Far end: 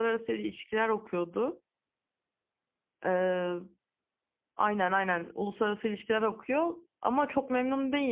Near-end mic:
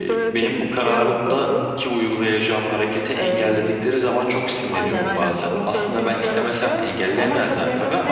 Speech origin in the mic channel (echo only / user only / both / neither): both